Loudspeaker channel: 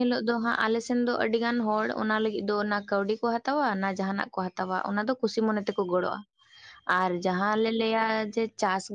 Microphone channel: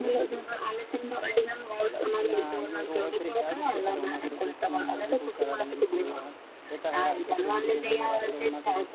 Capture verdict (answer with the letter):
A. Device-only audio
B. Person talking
B